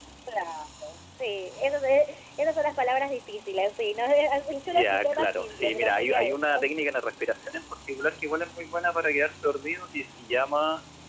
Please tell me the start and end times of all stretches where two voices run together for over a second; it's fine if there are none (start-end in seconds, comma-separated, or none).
4.7-6.5